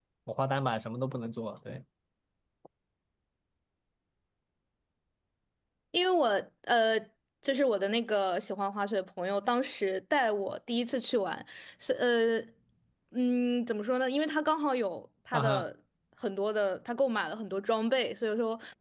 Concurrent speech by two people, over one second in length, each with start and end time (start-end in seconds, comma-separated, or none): none